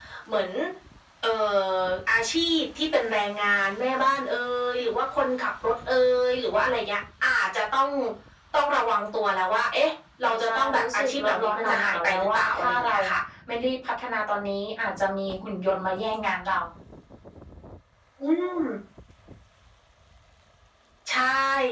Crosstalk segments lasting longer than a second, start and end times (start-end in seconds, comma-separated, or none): 10.2-13.0